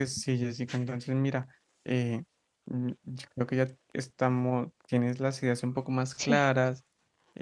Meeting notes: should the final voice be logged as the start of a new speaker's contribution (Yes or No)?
No